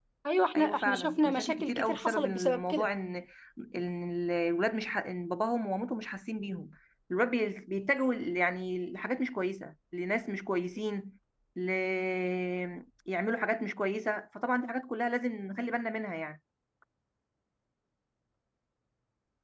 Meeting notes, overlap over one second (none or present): present